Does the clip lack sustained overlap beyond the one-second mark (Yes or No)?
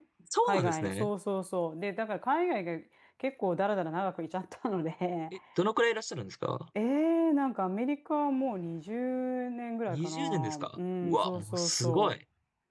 No